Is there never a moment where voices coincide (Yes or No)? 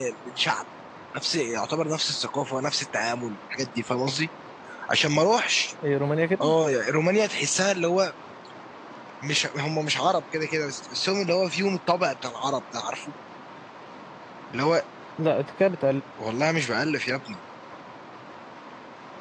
Yes